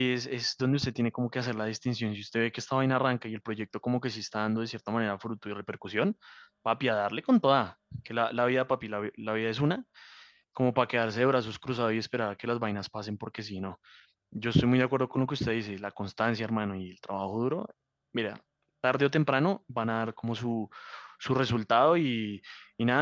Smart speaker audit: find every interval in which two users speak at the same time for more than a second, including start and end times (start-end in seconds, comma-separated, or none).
none